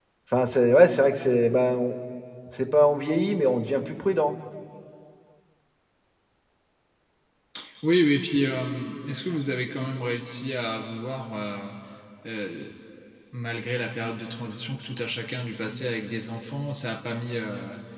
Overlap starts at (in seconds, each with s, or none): none